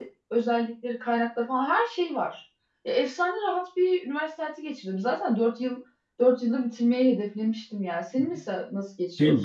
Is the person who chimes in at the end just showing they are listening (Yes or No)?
No